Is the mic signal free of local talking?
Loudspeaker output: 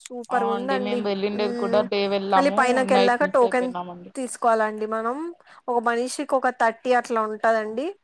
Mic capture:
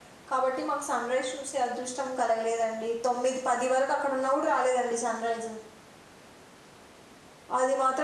No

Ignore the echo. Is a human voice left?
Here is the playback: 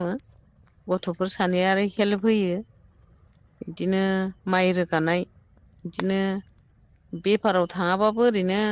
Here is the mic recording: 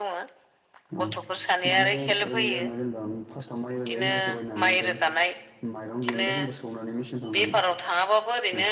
Yes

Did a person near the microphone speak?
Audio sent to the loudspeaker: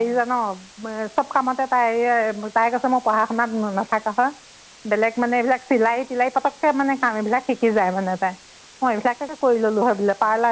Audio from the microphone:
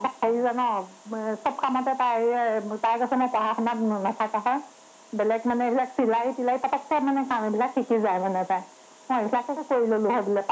No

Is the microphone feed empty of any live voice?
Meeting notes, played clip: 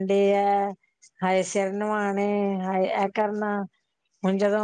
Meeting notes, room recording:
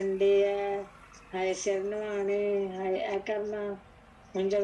Yes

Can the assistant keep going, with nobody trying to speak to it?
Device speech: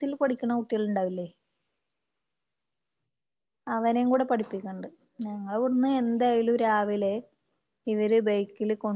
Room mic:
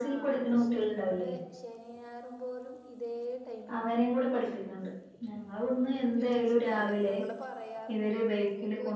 No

